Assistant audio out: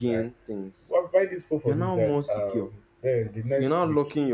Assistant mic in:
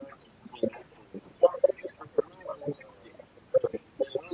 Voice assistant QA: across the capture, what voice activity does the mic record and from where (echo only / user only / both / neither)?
echo only